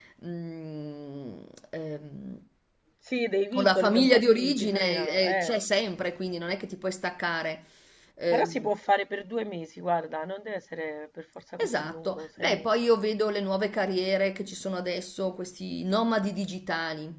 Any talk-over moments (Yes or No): Yes